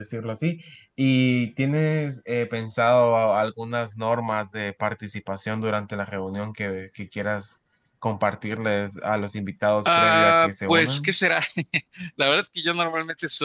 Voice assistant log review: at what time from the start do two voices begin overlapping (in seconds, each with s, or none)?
9.8 s